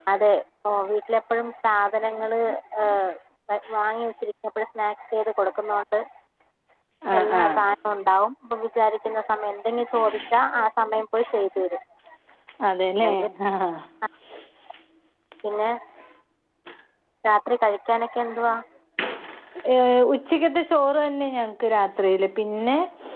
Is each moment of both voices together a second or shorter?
Yes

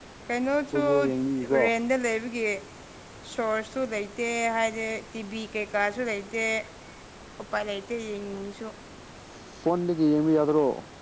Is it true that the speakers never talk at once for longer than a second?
Yes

